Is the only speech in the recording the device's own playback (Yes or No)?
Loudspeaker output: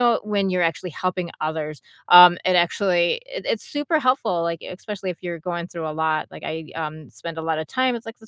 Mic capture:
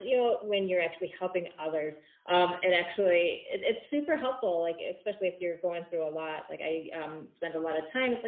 Yes